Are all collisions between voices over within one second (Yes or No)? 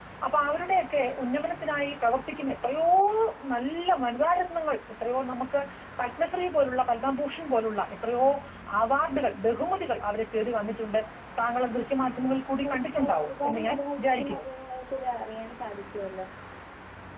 No